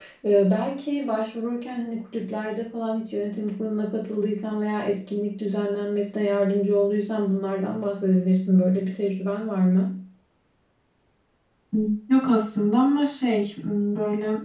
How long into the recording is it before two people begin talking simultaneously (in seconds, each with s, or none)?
none